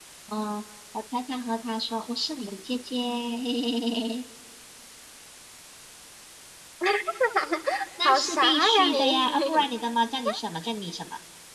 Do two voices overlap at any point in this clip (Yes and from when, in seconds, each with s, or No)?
Yes, from 8.0 s